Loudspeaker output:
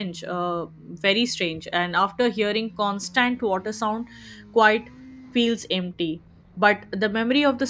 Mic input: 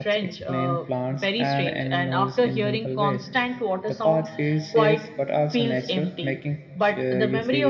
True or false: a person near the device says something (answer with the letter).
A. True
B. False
A